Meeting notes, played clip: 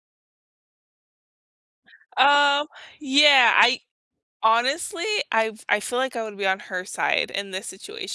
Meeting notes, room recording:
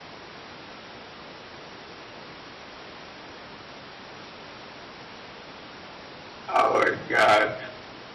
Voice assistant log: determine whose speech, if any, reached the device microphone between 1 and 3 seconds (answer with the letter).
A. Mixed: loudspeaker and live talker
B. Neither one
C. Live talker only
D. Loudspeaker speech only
B